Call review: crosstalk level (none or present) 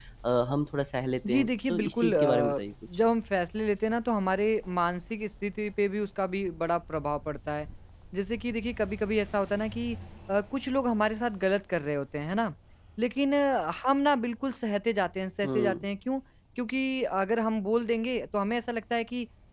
present